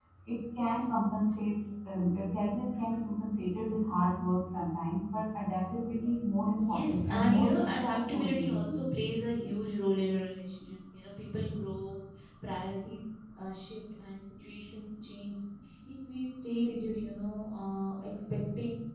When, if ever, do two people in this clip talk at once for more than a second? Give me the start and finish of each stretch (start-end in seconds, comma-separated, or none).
6.5-8.8